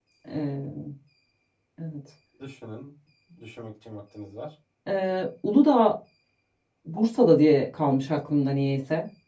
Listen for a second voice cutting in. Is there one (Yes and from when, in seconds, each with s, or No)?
No